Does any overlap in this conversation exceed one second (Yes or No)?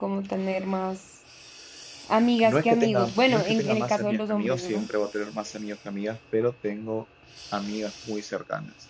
Yes